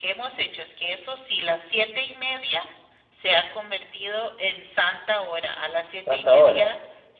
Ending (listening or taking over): listening